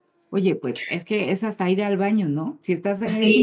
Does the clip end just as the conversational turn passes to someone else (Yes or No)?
No